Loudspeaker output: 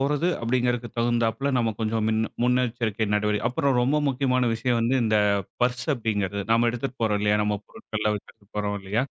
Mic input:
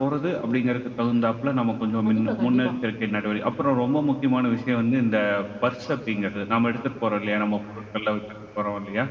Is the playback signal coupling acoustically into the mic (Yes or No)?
Yes